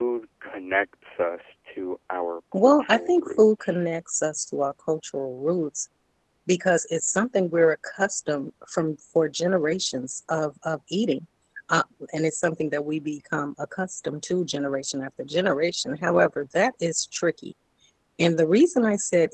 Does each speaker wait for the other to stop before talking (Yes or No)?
No